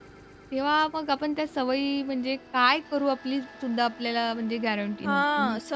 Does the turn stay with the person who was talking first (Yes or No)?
No